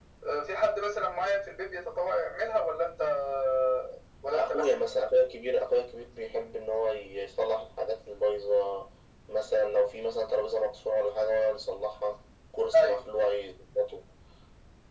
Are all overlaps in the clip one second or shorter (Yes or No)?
Yes